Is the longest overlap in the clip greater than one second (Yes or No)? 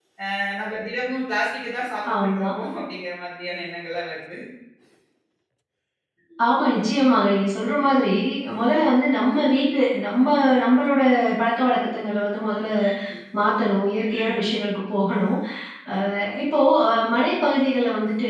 No